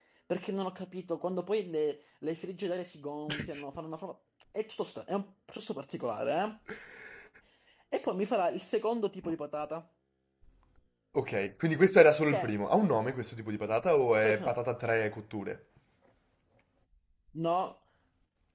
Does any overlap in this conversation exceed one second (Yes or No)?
No